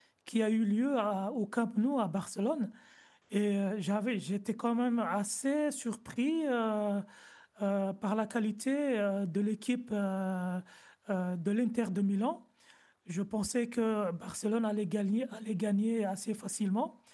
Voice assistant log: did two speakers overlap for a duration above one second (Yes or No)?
No